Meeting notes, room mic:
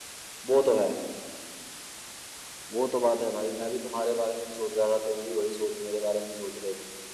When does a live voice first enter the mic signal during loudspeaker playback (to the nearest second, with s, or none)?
none